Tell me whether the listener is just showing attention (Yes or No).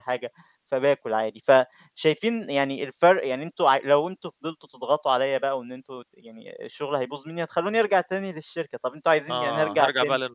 No